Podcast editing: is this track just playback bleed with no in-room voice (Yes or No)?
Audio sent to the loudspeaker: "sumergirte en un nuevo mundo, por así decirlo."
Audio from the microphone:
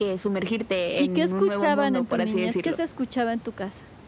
No